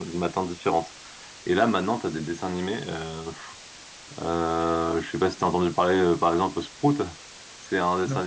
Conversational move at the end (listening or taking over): listening